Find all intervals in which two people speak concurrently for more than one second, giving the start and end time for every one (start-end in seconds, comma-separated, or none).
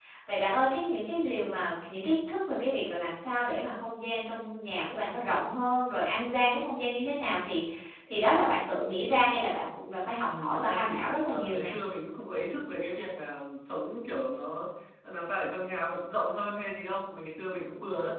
10.2-11.7